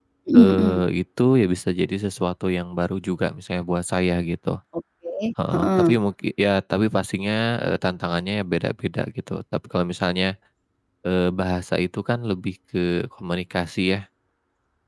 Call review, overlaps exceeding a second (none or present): none